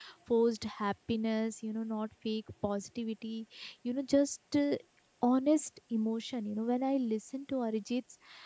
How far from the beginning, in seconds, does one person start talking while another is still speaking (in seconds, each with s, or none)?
none